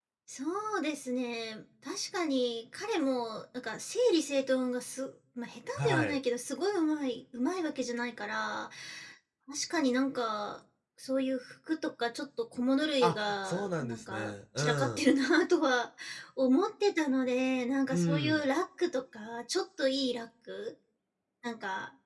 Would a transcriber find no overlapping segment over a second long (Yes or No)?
No